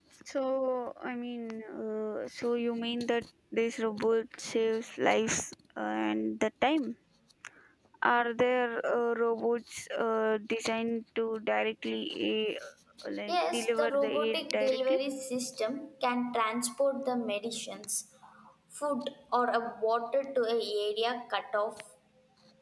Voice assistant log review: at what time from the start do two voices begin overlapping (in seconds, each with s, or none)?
13.3 s